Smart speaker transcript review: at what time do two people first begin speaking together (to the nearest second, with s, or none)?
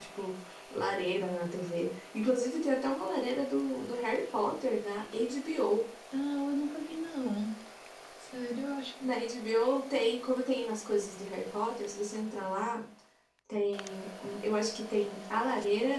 none